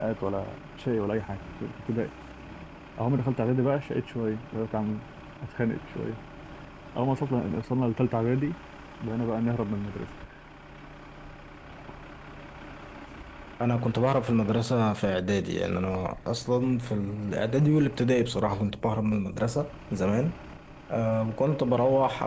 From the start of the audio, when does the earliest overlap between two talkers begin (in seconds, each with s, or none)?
none